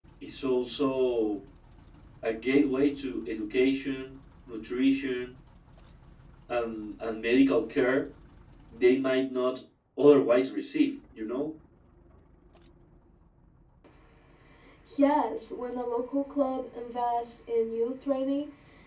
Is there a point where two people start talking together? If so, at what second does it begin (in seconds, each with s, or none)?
none